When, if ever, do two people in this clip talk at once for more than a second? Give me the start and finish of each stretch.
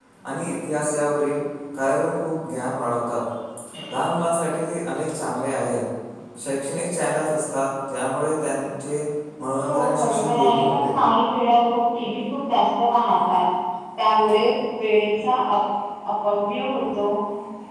9.6-10.9

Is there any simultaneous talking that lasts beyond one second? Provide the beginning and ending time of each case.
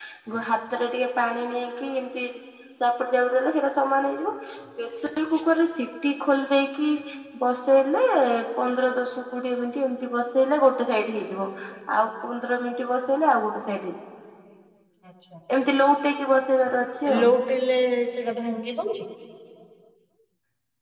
none

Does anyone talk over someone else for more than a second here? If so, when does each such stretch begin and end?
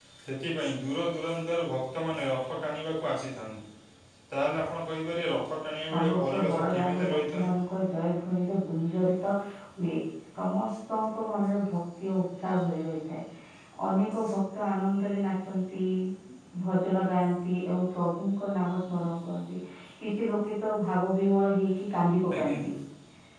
5.9-7.5

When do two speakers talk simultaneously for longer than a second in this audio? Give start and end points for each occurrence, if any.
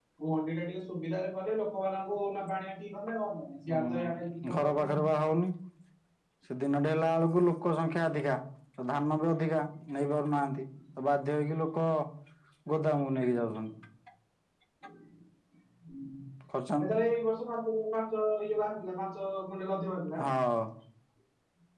3.7-5.0

